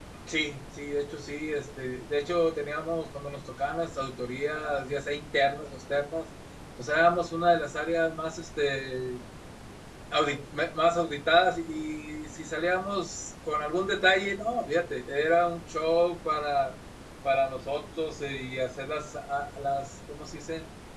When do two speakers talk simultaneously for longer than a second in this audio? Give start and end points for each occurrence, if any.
none

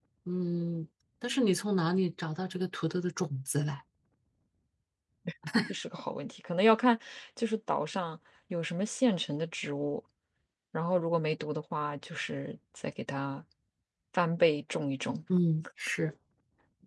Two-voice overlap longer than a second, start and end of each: none

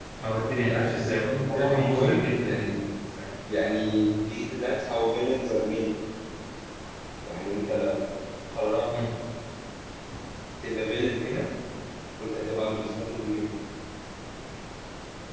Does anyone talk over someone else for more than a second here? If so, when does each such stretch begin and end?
0.6-2.8

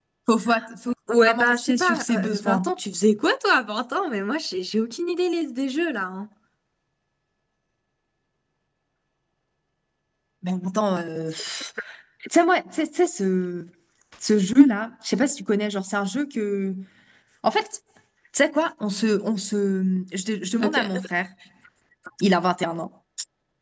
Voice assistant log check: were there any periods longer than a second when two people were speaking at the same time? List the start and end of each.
1.3-2.7

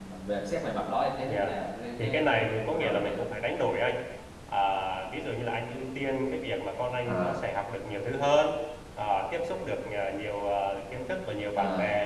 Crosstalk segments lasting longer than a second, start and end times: 2.0-3.3

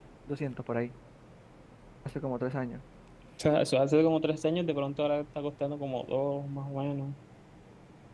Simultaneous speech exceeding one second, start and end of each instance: none

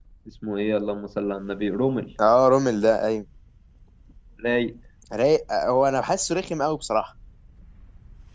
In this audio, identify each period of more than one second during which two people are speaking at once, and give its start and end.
none

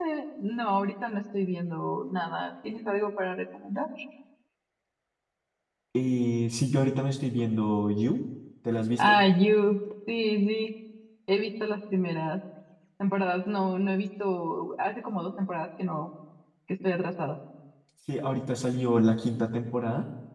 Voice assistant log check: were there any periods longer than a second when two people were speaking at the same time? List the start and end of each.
none

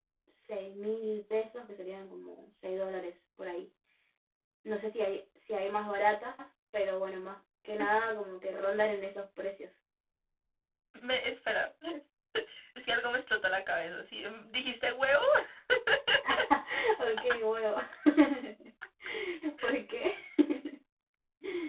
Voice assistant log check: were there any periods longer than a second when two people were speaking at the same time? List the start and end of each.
none

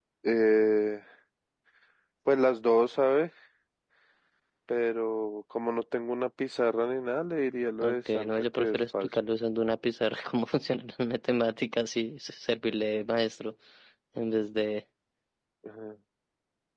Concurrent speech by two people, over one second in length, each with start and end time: 7.8-9.1

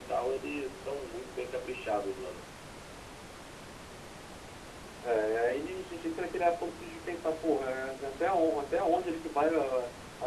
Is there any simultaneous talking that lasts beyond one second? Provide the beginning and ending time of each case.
none

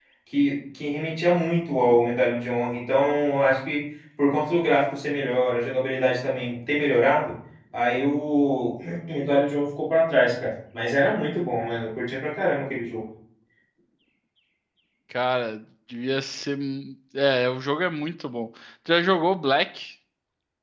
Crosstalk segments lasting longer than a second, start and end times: none

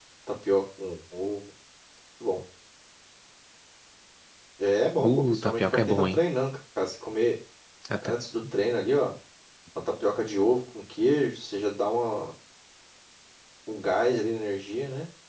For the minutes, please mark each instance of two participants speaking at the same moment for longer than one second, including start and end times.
5.0-6.2

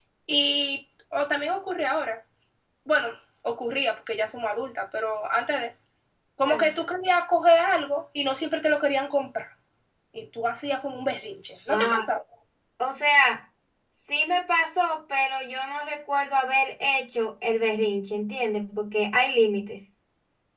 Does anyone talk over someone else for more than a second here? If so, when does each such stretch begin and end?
none

